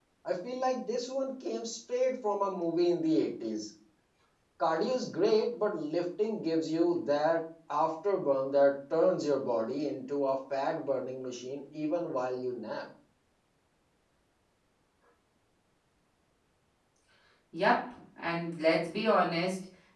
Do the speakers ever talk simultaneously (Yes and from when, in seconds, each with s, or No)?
No